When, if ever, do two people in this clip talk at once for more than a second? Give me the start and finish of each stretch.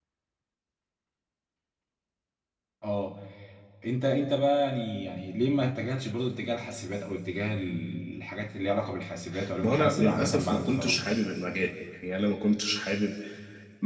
9.6-11.0

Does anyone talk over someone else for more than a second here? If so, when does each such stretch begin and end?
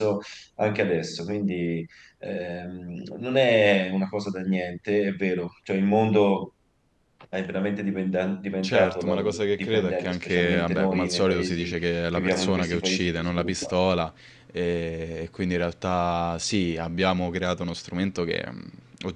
8.6-11.7, 12.1-13.7

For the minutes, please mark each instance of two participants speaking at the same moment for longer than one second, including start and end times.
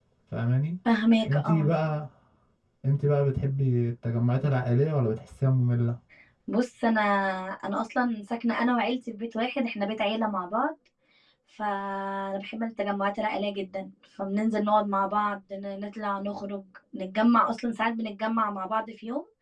none

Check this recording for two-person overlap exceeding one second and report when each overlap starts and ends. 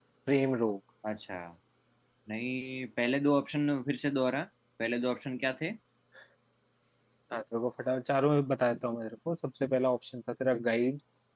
none

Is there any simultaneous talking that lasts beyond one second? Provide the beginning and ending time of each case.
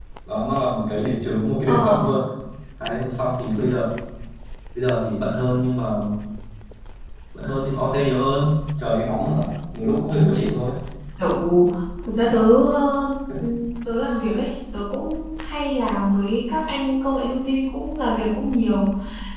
none

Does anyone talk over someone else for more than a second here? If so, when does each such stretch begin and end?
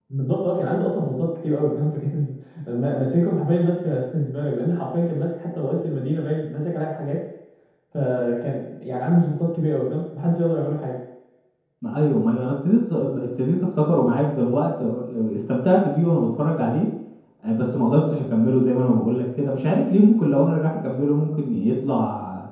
none

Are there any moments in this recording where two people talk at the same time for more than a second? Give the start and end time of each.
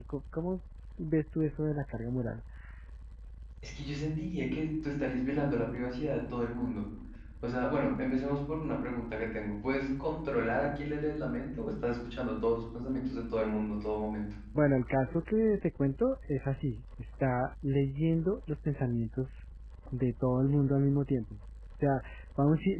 none

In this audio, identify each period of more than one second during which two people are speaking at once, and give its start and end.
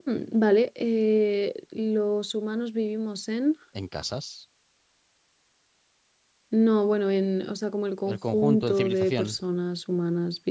8.1-9.4

